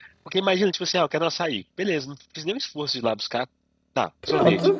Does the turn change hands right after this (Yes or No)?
No